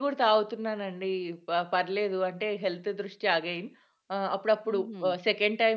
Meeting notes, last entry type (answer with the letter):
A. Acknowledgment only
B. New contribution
A